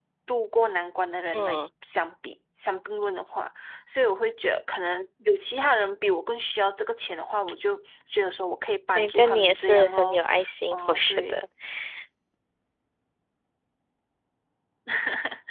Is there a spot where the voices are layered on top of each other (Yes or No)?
Yes